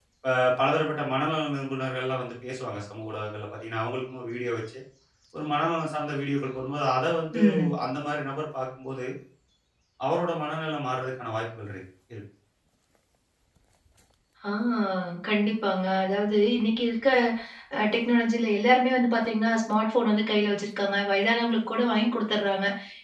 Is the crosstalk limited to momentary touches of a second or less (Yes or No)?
Yes